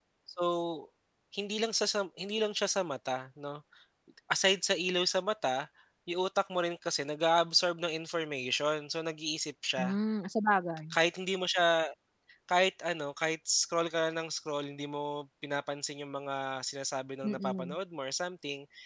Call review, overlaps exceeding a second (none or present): none